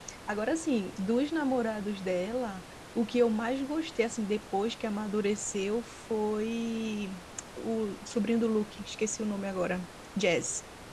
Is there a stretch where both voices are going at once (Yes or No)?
No